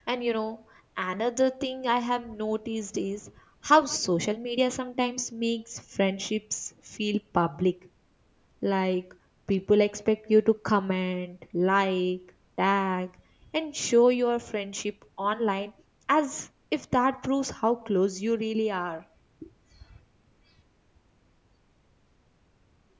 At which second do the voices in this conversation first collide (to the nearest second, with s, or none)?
none